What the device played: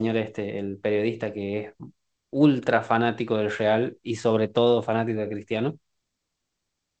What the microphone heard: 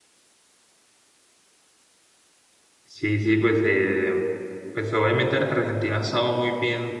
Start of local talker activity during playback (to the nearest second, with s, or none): 3 s